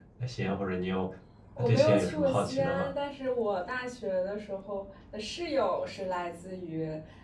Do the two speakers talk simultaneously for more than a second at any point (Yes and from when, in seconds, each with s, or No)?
Yes, from 1.6 s